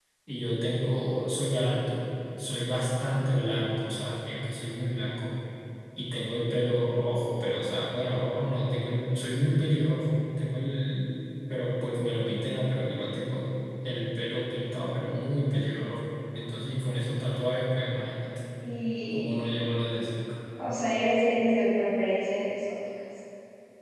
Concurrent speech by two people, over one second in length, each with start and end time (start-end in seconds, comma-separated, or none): none